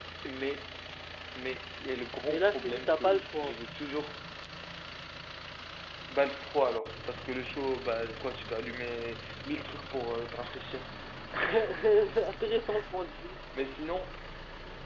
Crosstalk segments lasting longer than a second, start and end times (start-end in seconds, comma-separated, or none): 2.3-3.5